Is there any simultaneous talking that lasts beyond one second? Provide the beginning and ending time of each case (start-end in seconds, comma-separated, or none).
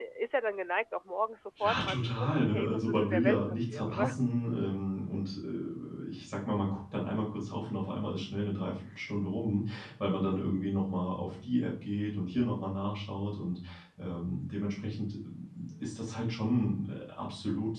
1.6-4.2